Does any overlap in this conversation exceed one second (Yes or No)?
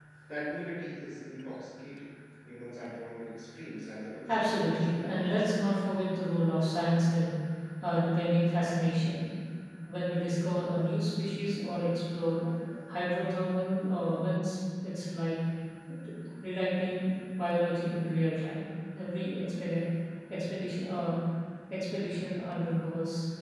Yes